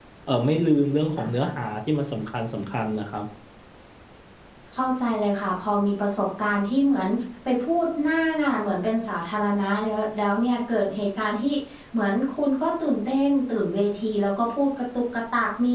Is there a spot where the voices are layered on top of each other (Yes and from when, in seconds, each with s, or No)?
No